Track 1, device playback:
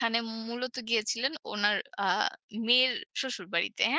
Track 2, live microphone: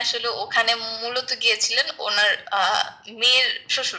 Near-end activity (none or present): none